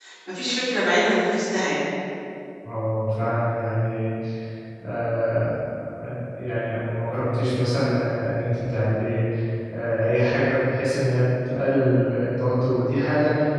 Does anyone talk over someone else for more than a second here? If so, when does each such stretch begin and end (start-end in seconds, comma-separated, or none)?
none